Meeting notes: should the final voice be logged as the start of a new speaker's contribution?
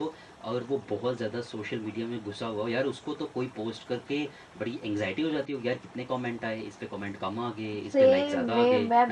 Yes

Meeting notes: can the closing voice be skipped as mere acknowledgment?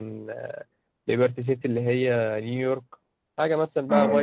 Yes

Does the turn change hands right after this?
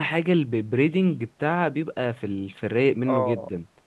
Yes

